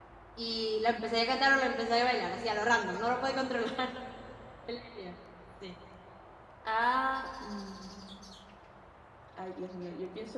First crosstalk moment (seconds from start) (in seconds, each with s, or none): none